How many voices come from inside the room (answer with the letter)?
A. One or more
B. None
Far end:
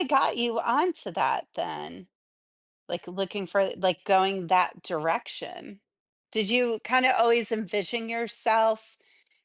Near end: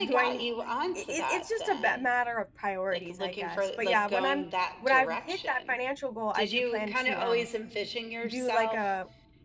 A